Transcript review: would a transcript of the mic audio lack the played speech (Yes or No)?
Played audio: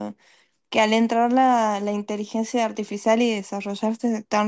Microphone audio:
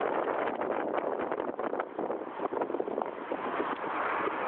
Yes